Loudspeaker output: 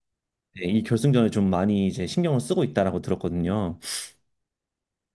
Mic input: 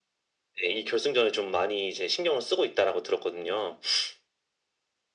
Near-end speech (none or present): none